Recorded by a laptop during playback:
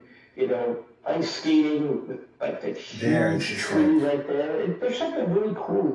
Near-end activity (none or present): present